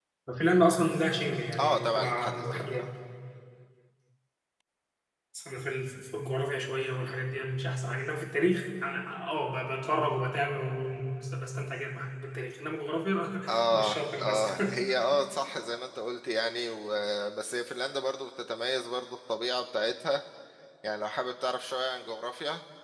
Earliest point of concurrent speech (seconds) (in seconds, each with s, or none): 1.6 s